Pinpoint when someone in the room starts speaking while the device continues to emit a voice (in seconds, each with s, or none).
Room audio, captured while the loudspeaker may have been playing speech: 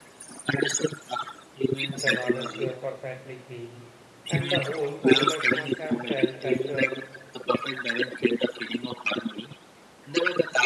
1.9 s